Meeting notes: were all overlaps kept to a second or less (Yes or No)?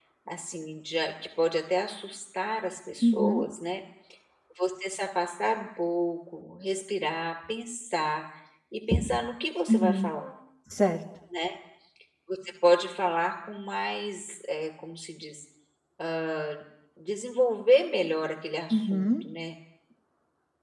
Yes